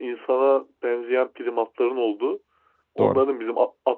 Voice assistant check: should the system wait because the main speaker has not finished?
Yes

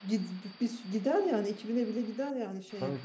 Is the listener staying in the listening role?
Yes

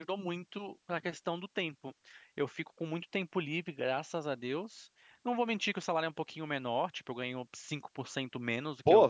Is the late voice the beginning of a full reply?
Yes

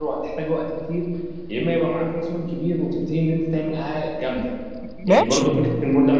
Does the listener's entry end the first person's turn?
No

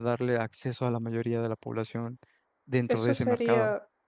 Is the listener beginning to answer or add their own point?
Yes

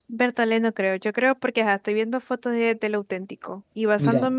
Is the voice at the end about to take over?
No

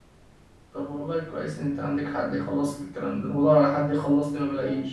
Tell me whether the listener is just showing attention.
Yes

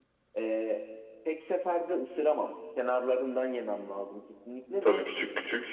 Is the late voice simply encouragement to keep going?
No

